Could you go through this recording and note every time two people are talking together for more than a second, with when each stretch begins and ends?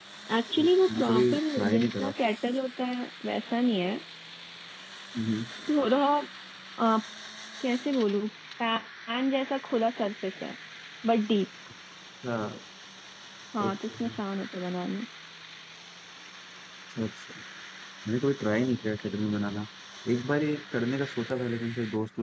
0.6-2.1

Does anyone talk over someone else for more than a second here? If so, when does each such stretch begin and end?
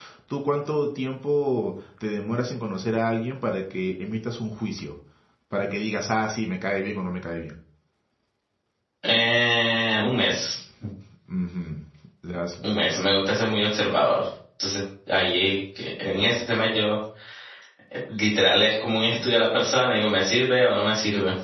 none

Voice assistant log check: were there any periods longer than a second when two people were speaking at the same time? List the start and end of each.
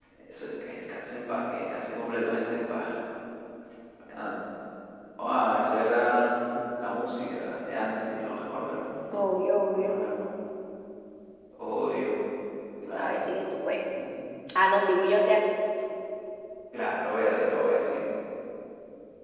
none

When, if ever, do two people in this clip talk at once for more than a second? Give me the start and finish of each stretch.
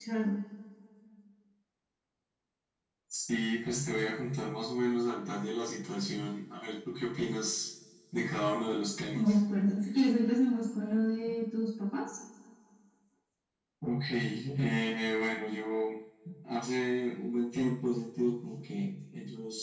none

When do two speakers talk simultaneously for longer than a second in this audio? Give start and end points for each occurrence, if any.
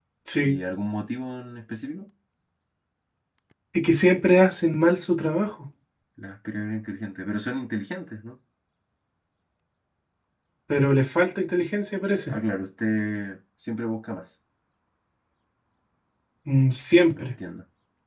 none

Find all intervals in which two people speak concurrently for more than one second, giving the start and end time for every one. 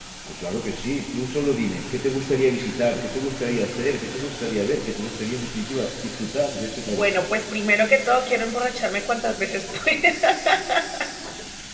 none

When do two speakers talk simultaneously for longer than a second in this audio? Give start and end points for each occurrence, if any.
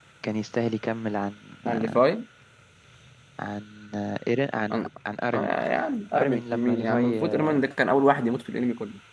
6.2-7.6

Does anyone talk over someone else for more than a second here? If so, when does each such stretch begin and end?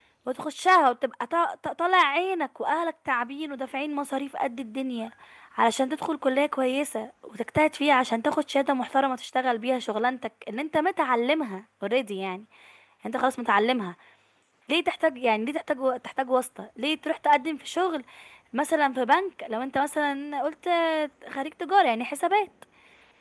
none

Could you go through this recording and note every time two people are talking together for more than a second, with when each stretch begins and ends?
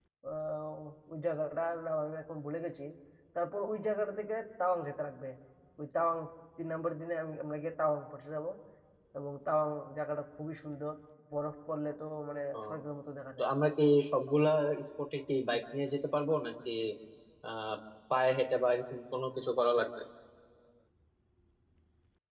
none

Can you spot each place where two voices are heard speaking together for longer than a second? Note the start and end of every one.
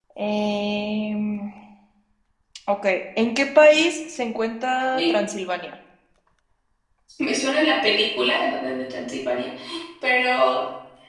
none

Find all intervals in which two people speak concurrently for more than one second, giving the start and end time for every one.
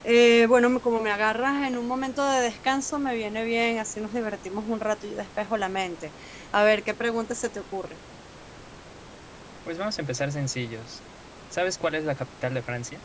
none

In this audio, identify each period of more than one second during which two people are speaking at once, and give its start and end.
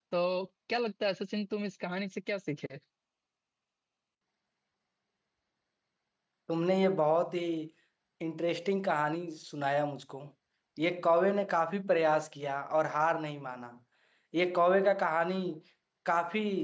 none

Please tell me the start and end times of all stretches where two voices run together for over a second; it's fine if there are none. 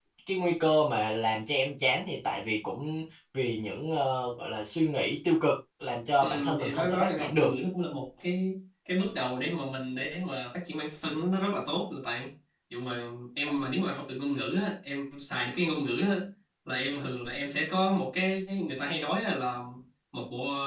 6.2-7.5

